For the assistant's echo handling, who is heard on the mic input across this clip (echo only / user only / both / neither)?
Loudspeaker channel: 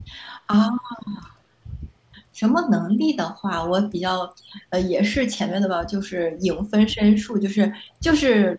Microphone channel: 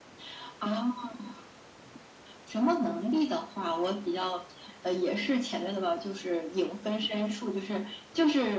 echo only